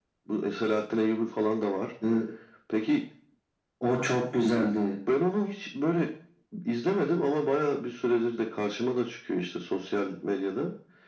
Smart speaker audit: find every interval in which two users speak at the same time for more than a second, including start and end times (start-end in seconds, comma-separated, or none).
none